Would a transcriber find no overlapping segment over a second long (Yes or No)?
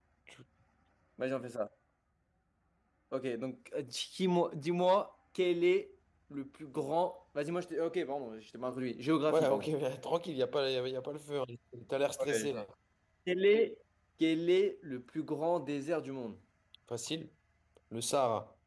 Yes